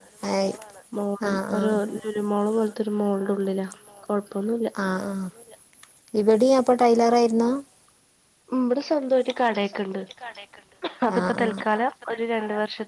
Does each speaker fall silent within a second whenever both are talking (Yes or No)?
Yes